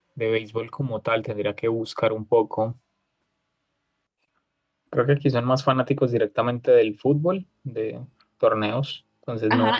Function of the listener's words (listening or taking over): taking over